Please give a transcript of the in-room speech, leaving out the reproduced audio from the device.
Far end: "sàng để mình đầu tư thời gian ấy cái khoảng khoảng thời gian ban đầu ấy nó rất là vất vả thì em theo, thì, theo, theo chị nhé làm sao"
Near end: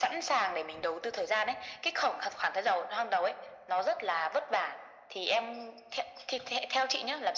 none

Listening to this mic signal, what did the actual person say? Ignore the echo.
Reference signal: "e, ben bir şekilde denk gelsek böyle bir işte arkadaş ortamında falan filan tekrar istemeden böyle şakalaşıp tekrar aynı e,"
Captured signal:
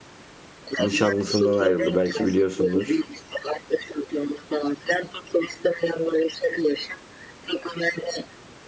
nişanlısından ayrıldı belki biliyorsundur.

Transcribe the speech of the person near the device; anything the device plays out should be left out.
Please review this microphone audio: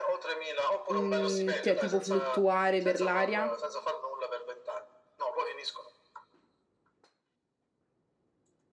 mh, cioè tipo fluttuare per l'aria

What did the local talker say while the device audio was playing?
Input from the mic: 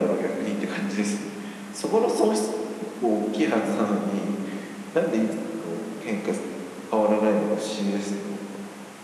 none

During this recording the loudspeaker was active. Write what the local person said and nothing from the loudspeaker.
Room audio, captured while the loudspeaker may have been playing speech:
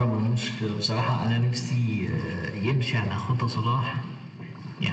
none

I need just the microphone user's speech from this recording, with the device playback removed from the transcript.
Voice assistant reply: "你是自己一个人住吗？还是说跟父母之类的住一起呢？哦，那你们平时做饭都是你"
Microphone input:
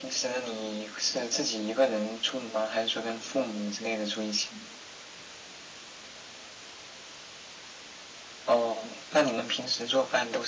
none

